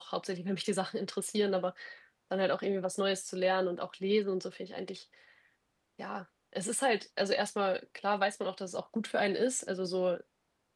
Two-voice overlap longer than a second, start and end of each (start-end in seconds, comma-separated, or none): none